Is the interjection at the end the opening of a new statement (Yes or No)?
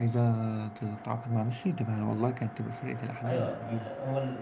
Yes